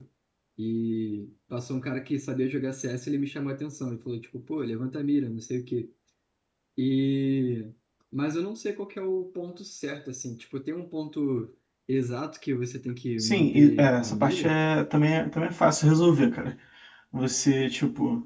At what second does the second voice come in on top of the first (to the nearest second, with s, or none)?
13 s